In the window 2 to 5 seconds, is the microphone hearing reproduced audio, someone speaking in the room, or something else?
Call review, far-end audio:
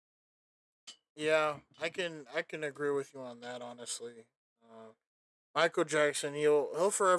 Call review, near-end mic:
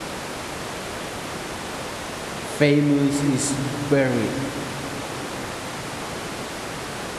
user only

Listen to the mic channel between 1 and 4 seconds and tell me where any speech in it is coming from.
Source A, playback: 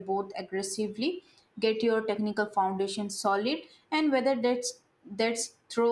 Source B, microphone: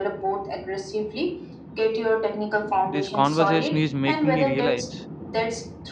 both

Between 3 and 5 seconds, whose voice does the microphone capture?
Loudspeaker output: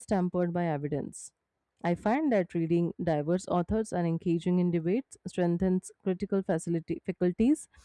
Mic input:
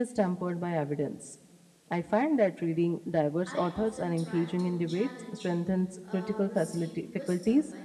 both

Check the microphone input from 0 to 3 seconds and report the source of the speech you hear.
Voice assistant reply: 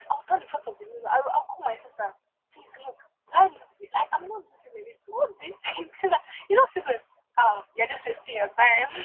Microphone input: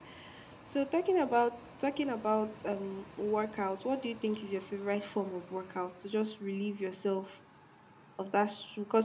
user only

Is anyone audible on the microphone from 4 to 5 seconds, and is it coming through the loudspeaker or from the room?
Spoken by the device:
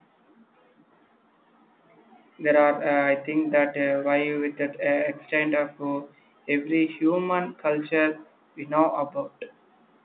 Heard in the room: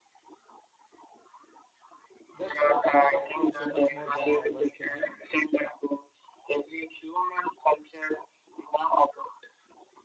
both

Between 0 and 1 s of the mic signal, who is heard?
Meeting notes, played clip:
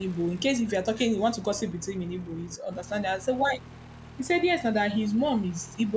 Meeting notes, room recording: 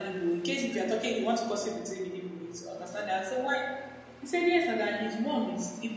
echo only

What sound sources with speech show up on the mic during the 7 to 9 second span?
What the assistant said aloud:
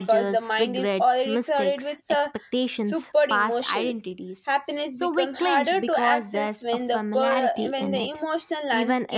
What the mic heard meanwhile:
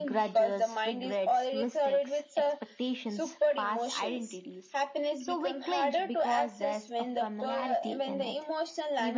echo only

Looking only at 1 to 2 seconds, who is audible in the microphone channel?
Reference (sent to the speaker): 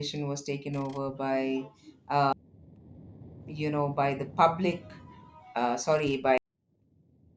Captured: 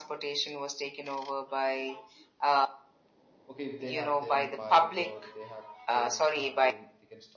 echo only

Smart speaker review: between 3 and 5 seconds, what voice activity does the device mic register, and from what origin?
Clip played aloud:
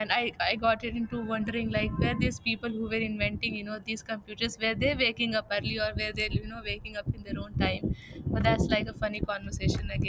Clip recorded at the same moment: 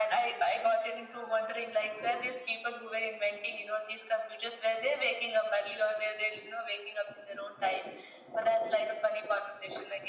echo only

